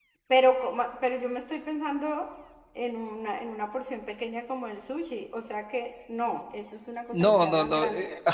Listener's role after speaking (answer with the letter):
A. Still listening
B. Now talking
B